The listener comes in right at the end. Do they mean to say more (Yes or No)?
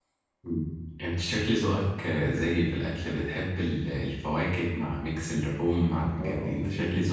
Yes